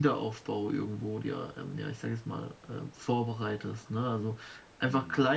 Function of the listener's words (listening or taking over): listening